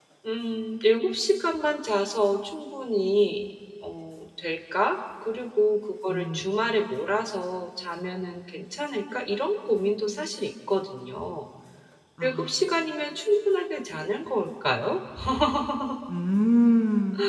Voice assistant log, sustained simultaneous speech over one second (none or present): none